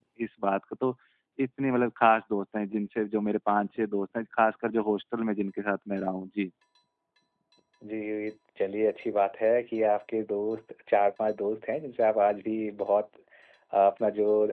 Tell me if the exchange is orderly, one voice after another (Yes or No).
Yes